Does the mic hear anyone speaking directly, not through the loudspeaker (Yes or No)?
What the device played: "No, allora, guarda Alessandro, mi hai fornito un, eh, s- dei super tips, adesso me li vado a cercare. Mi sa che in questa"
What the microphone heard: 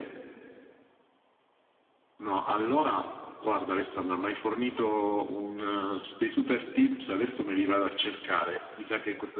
No